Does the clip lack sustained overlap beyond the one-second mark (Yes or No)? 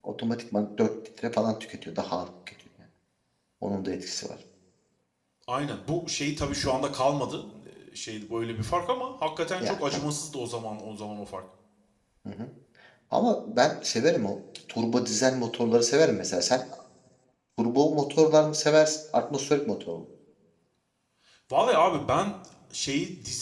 Yes